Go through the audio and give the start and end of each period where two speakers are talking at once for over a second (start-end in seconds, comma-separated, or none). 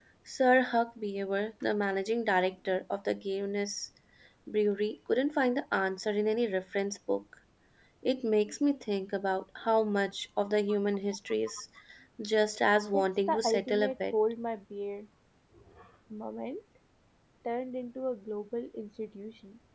12.9-14.1